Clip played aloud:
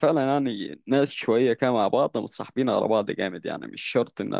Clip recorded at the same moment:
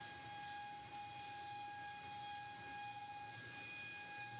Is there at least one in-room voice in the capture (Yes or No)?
No